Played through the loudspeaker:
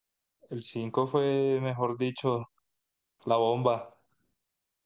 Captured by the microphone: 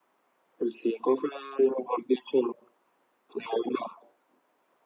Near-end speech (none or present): none